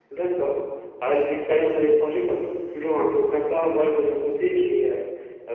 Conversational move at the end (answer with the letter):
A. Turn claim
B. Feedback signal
B